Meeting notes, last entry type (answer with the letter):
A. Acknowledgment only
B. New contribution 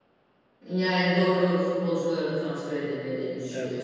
B